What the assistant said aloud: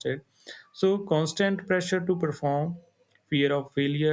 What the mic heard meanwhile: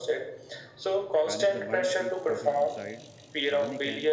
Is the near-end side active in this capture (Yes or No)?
Yes